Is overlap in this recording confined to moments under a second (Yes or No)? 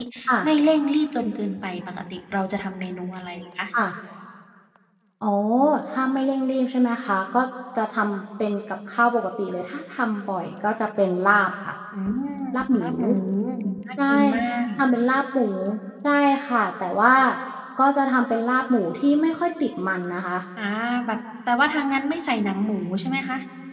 Yes